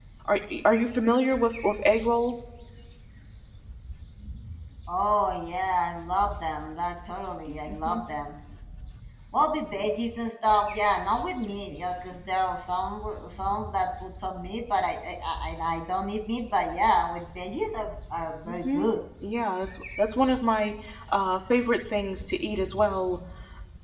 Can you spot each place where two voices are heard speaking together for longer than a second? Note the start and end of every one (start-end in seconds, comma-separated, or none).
none